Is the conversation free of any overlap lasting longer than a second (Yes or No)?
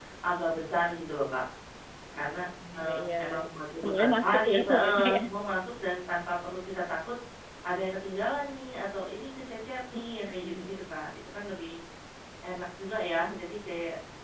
No